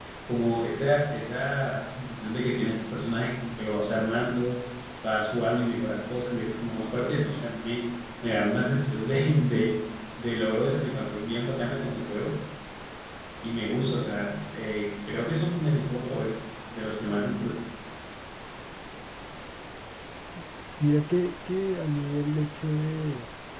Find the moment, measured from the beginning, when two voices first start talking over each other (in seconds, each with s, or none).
none